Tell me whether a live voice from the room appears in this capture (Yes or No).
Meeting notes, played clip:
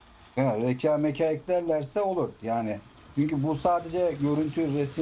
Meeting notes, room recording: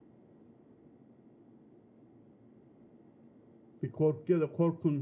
Yes